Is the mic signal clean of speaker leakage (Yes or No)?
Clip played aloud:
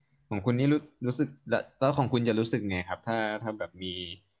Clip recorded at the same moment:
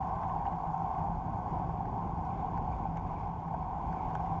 Yes